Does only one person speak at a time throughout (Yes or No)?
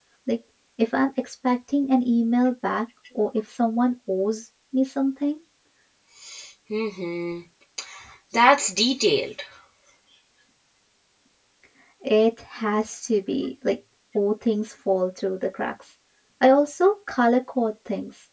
Yes